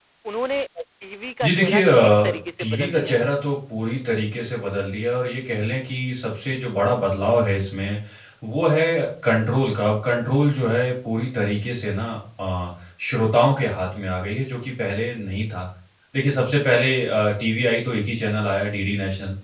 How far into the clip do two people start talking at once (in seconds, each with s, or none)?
1.4 s